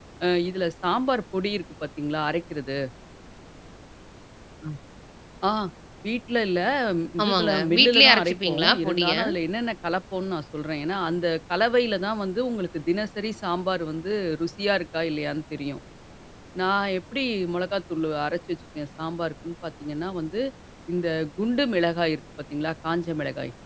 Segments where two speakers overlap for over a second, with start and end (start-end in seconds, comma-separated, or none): 7.2-9.1